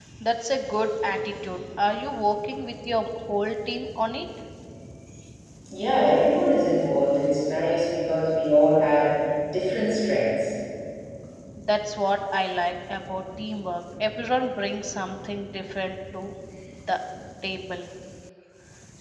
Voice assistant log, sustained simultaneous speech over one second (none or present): none